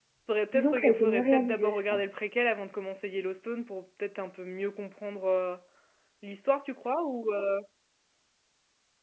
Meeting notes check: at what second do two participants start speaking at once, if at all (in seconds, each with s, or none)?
0.5 s